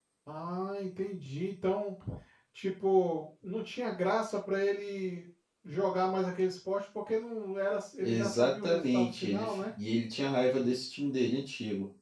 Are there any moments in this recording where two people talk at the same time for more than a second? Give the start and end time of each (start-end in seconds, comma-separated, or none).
8.0-9.7